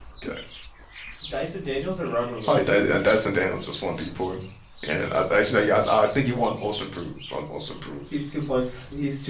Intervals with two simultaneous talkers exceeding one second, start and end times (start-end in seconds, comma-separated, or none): none